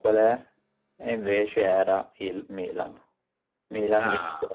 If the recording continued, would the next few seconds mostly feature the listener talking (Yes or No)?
No